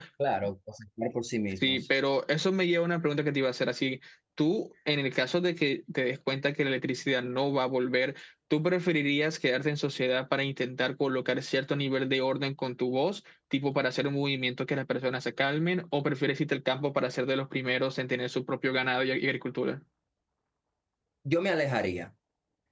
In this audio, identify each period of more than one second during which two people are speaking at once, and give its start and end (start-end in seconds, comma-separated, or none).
none